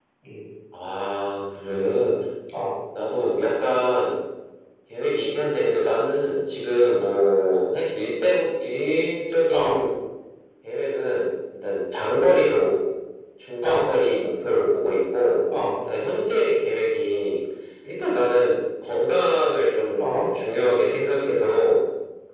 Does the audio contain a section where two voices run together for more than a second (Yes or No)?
No